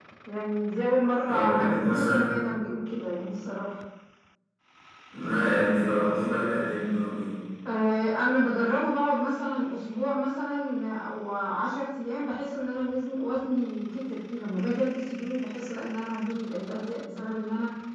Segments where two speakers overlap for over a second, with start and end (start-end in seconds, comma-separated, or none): none